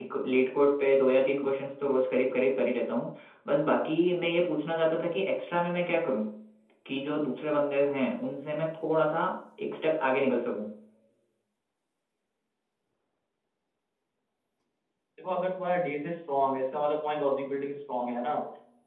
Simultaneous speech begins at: none

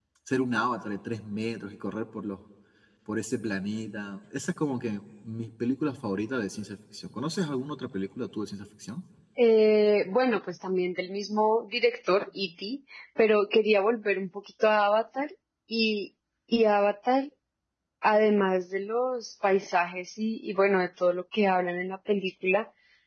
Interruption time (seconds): none

